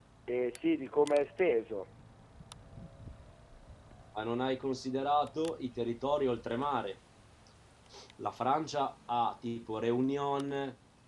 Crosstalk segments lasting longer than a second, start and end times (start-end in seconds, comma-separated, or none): none